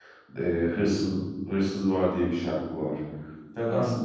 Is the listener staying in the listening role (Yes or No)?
Yes